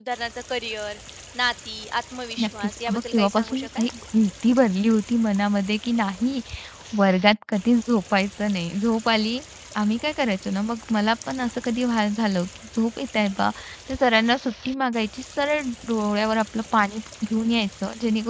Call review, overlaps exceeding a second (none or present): present